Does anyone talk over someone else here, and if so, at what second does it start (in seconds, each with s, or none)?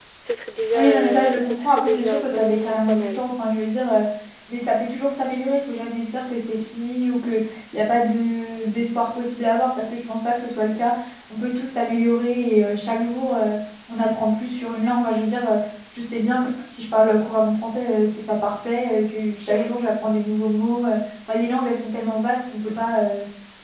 0.7 s